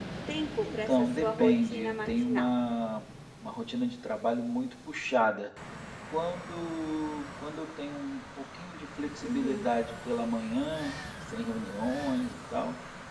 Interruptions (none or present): present